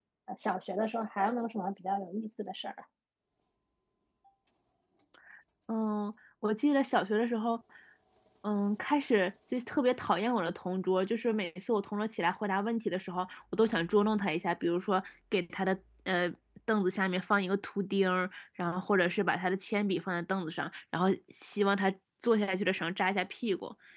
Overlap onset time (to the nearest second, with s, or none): none